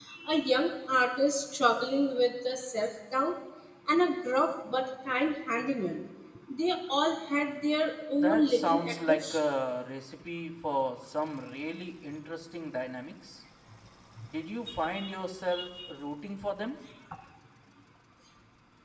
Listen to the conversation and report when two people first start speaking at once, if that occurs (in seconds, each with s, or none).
8.1 s